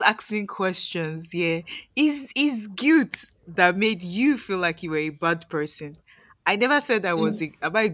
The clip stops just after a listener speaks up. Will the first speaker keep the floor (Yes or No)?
Yes